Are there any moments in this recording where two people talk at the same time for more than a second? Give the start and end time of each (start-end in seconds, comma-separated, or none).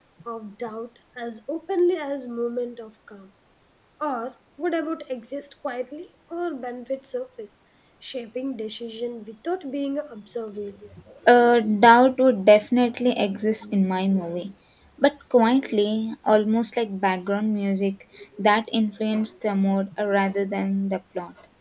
none